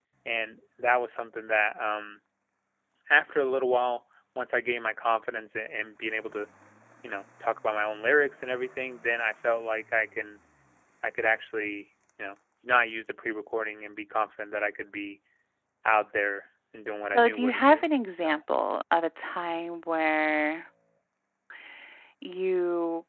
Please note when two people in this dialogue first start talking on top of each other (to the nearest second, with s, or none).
17 s